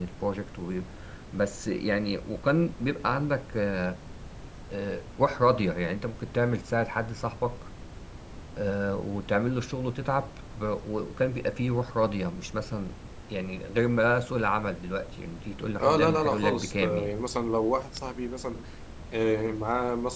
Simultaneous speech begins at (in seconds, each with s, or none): 15.8 s